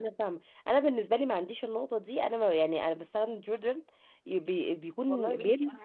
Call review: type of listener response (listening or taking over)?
taking over